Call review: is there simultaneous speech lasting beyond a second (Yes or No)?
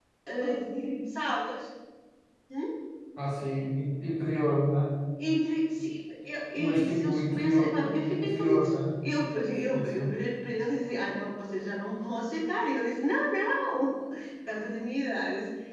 Yes